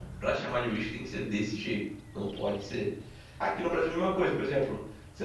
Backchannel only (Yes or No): Yes